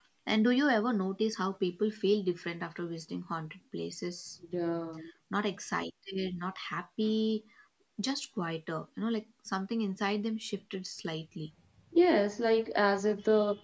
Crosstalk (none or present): none